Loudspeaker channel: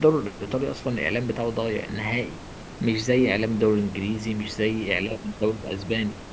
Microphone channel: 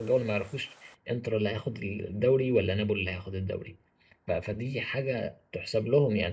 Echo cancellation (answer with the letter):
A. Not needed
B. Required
A